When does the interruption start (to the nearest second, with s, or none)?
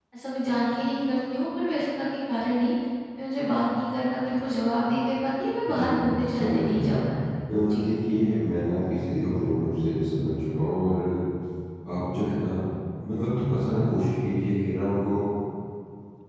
6 s